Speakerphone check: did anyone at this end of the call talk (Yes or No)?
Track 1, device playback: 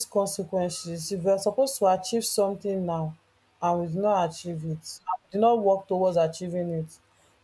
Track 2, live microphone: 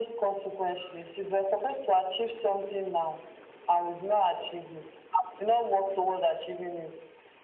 No